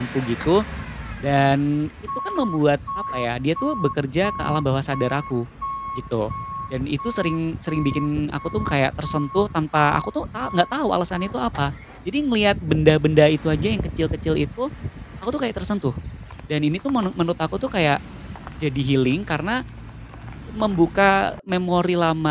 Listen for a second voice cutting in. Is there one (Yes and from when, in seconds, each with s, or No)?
No